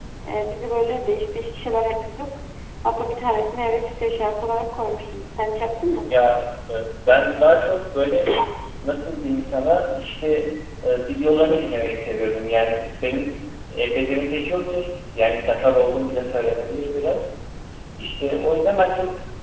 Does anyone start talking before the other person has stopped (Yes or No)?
No